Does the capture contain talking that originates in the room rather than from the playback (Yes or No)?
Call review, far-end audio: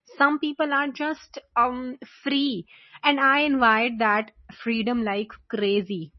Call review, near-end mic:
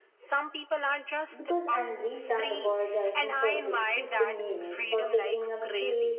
Yes